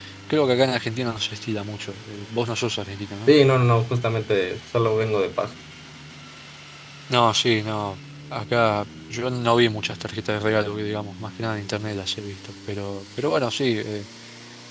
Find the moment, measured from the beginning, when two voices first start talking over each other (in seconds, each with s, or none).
none